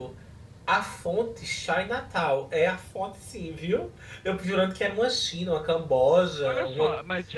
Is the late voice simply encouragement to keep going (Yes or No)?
No